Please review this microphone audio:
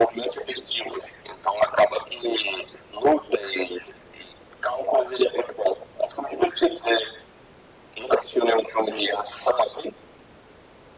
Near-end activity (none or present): none